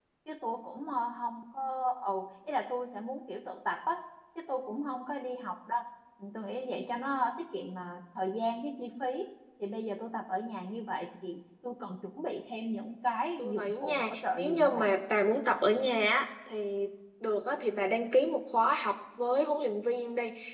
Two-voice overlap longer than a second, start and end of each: 13.4-14.9

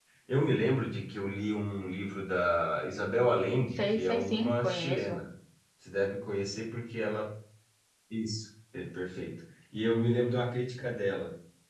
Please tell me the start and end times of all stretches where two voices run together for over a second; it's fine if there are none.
3.8-5.2

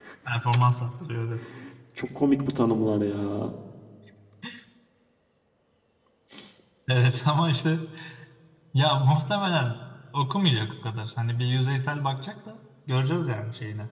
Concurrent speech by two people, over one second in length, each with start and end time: none

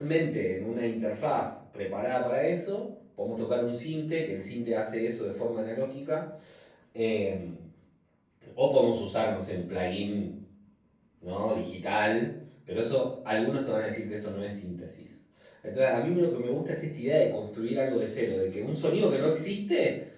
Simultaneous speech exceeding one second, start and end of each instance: none

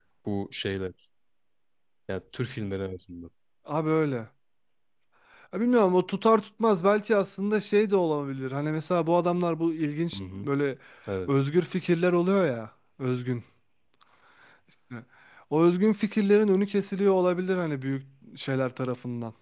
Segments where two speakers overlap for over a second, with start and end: none

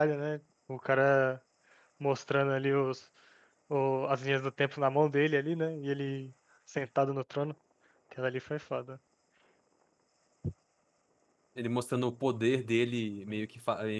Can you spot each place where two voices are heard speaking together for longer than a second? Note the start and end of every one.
none

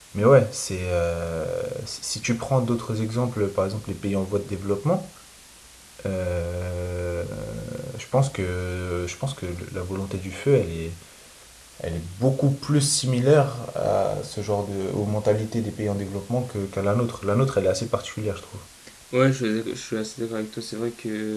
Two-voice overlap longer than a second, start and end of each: none

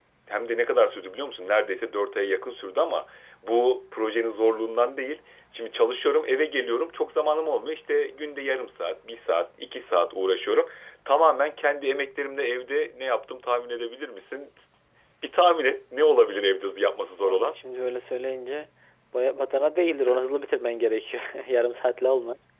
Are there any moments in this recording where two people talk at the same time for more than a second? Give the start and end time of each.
none

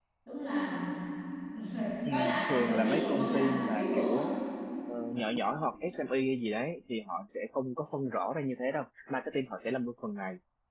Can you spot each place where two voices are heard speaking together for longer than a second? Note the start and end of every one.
2.1-4.2

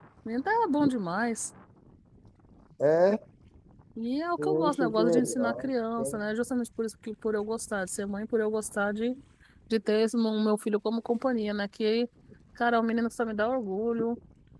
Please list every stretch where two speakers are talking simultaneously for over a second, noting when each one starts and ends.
4.4-5.7

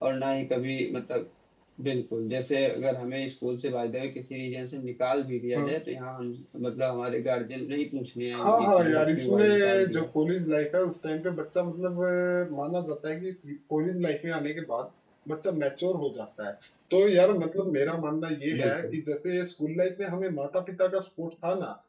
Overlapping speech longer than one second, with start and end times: 8.4-10.1

